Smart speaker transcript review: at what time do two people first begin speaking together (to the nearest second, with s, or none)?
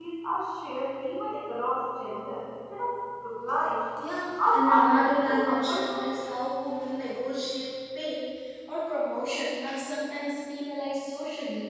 4 s